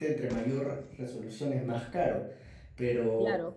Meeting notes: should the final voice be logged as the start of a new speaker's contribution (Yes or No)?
No